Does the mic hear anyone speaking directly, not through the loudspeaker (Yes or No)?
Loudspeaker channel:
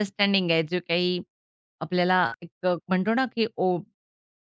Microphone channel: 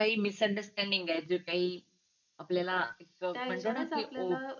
Yes